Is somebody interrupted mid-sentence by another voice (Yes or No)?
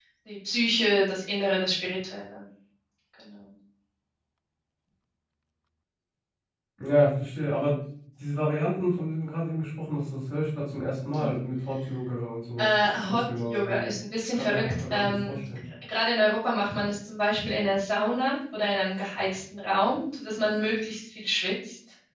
Yes